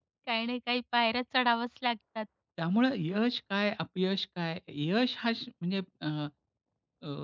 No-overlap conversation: Yes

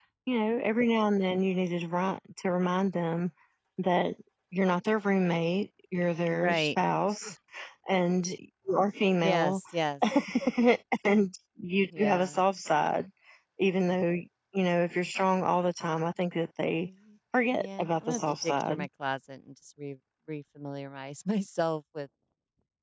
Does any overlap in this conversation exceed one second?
Yes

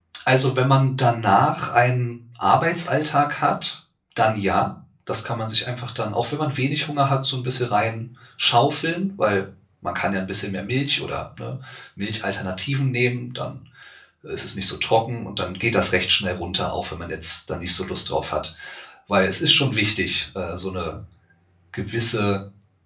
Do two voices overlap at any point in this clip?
No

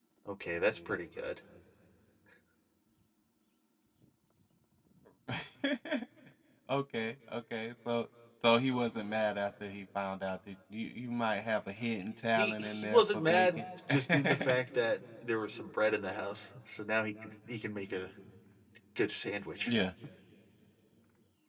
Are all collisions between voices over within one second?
No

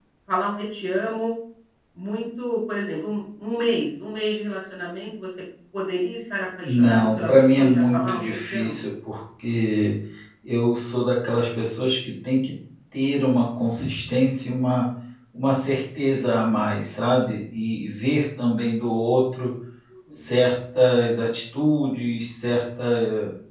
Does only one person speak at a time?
No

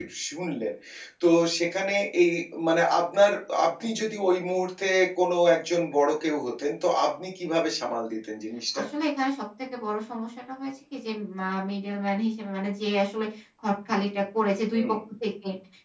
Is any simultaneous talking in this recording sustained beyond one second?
No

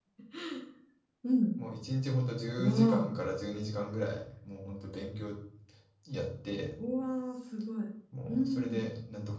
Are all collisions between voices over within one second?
Yes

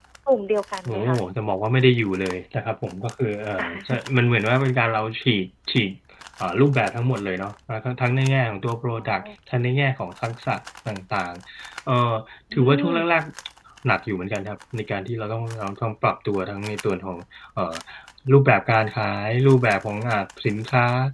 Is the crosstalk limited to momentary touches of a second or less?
Yes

